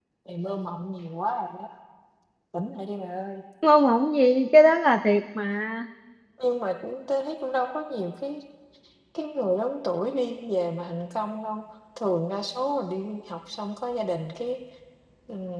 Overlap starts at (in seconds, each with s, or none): none